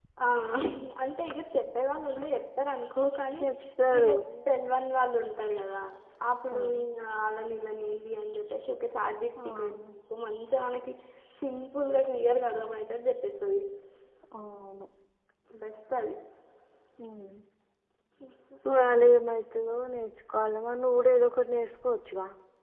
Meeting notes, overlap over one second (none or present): none